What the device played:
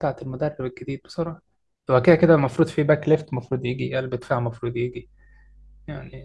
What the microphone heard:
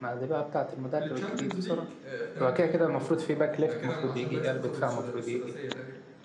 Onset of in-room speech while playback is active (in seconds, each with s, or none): 1.0 s